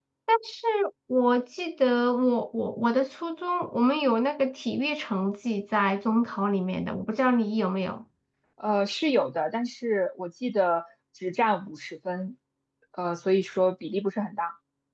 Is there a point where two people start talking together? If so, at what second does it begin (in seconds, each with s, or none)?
none